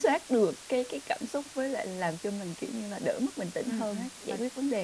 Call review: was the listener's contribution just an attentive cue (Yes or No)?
No